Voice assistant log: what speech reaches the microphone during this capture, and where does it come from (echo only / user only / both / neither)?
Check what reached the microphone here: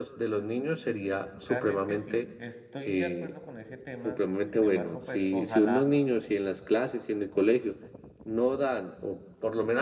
both